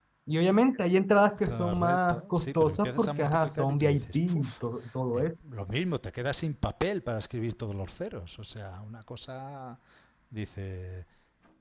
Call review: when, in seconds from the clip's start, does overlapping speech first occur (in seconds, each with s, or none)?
1.4 s